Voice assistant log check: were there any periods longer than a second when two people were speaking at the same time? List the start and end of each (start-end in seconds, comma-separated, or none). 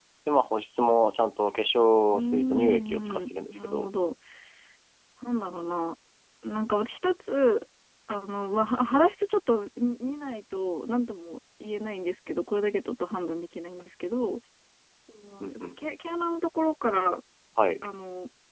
2.1-3.9